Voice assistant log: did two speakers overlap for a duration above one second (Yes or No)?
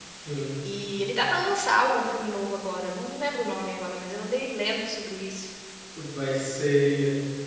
No